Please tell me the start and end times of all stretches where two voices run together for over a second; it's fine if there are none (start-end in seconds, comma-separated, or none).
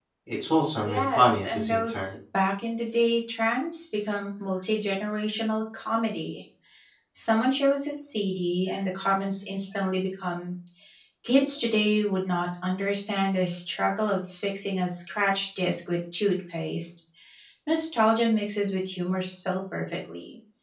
0.8-2.1